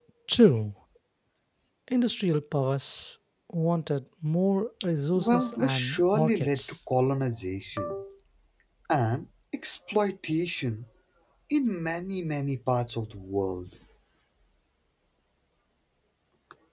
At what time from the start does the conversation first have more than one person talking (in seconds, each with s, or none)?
5.2 s